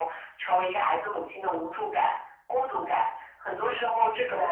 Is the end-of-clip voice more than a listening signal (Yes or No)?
No